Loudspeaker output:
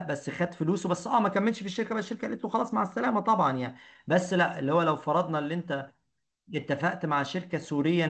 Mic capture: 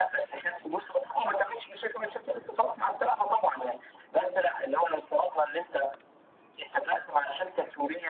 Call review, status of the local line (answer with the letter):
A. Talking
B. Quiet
B